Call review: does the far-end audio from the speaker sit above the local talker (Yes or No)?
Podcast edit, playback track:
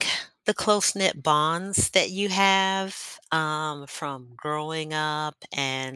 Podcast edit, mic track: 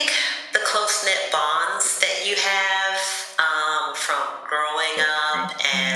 Yes